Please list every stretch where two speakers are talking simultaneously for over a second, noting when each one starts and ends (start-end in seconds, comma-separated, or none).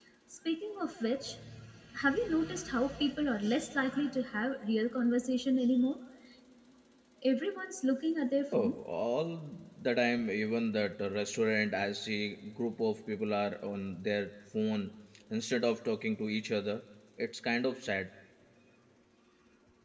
none